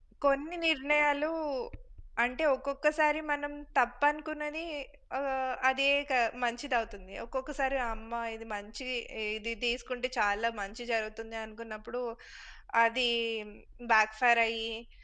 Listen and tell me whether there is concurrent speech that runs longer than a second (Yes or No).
No